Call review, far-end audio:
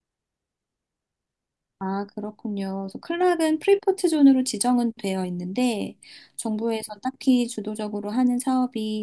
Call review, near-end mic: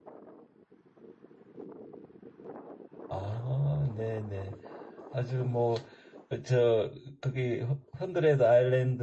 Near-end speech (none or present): present